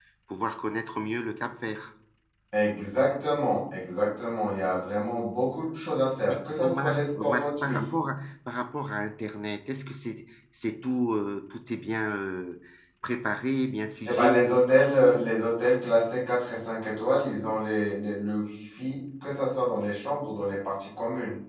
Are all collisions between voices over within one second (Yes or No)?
No